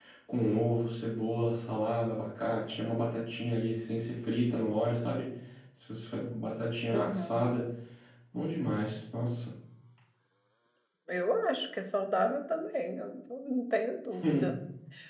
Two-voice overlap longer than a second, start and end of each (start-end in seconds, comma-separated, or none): none